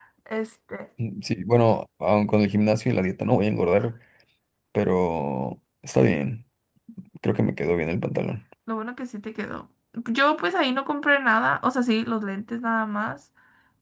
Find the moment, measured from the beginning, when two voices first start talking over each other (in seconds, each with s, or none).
none